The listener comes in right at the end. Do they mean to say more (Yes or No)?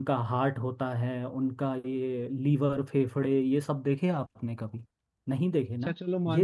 Yes